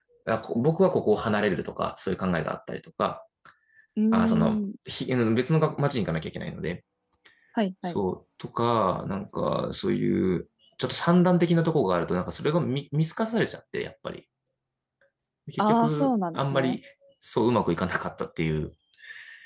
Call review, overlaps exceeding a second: present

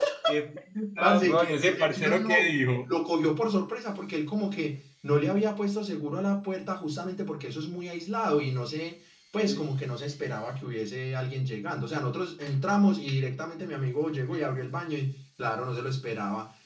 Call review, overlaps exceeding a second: present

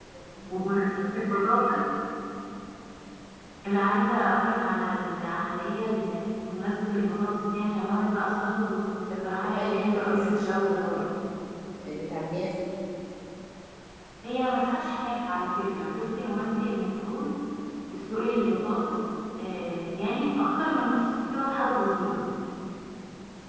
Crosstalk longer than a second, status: present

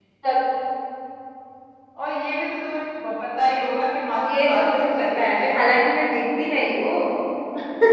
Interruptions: present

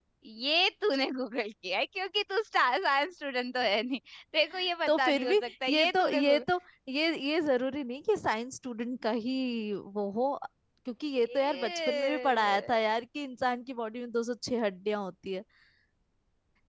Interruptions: present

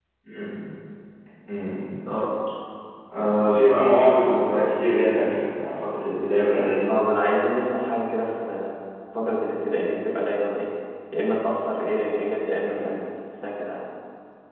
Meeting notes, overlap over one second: none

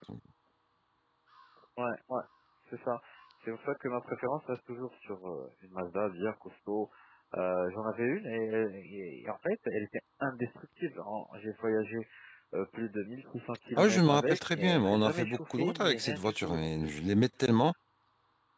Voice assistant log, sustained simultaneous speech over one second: present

